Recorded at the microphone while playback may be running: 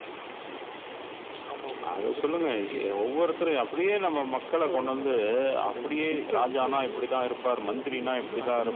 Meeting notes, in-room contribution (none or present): none